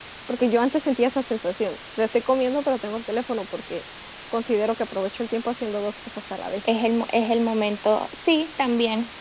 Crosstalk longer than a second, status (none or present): none